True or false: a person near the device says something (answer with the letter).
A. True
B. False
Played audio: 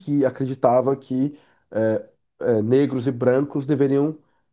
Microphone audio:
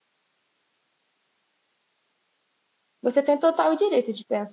A